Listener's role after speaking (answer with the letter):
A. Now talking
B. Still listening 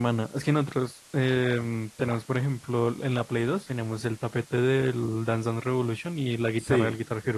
A